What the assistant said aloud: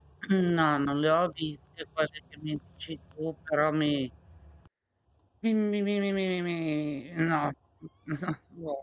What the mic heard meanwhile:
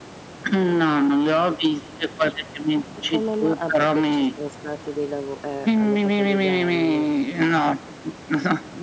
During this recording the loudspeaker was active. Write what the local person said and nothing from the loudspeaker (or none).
E come ma ah, perché ci sono stati dei lavo eh, hanno fatto dei danni.